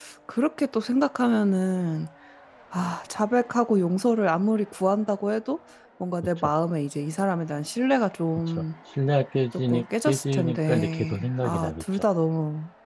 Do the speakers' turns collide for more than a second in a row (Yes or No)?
Yes